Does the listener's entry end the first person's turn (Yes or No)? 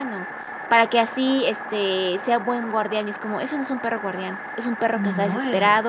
No